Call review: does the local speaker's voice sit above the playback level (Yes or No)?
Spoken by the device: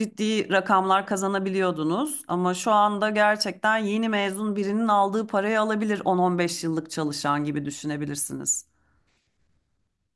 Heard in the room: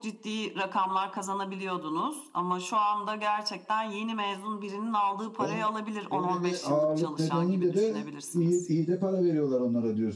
Yes